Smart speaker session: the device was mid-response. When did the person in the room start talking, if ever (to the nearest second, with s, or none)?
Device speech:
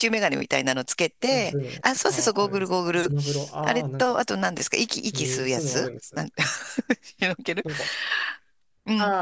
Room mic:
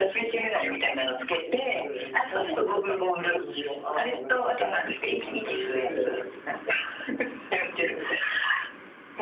2 s